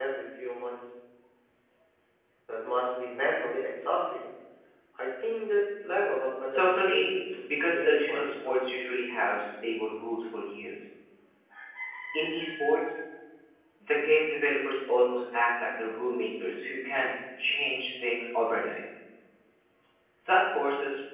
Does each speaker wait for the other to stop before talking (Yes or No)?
No